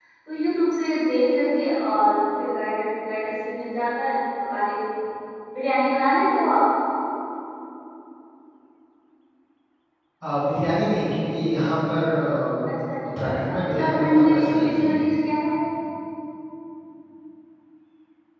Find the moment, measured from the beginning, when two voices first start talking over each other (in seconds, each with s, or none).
13.2 s